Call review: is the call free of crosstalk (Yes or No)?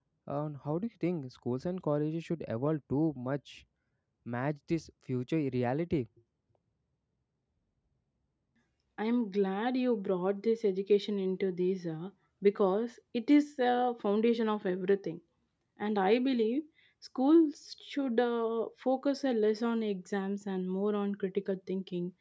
Yes